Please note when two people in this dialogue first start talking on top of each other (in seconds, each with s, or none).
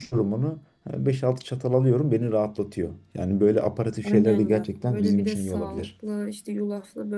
4.0 s